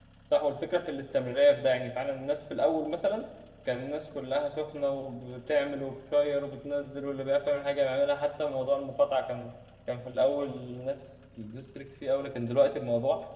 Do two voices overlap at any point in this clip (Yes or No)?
No